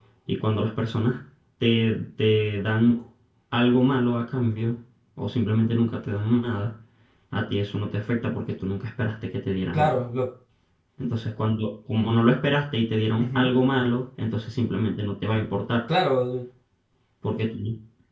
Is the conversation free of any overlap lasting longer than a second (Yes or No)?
Yes